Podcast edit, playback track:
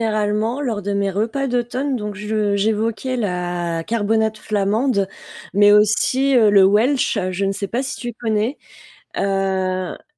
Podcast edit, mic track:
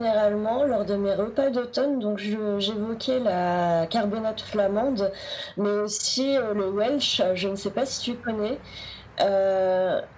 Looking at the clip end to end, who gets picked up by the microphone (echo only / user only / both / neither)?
echo only